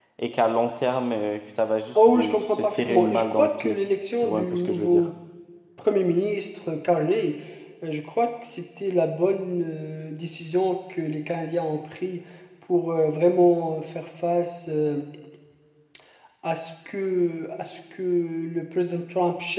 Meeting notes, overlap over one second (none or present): present